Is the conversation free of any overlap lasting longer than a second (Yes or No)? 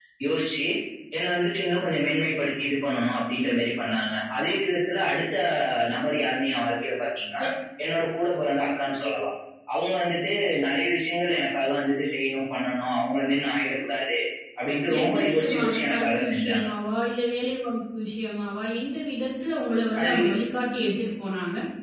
No